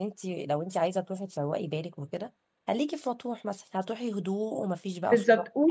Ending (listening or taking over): taking over